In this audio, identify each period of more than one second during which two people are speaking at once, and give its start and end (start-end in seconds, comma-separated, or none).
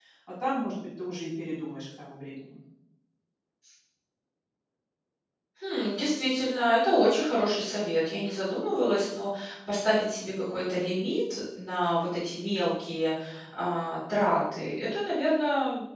none